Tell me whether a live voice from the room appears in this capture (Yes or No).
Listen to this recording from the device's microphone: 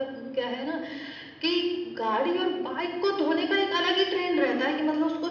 No